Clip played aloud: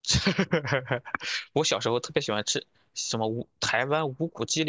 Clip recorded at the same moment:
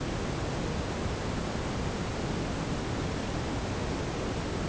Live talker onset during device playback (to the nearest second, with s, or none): none